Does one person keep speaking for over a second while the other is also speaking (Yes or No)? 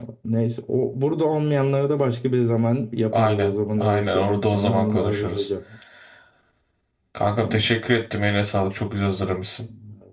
Yes